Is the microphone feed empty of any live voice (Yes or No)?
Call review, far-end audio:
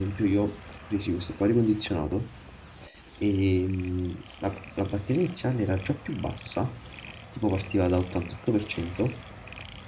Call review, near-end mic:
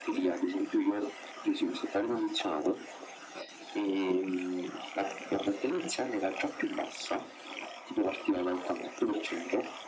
Yes